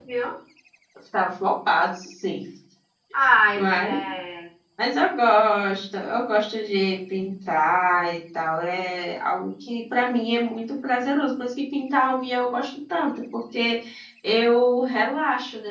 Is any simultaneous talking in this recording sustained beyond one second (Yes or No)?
No